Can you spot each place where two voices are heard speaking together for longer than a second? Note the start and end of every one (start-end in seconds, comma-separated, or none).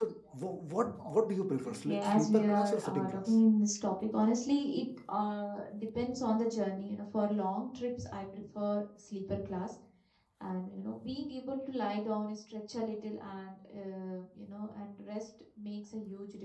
1.6-3.4